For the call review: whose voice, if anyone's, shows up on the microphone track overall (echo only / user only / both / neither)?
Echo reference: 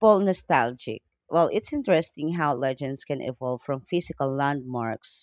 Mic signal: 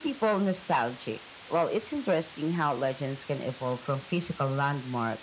echo only